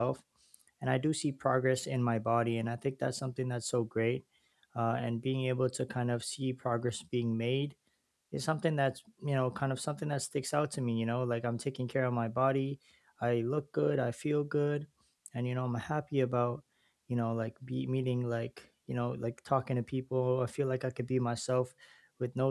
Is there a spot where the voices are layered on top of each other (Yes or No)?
No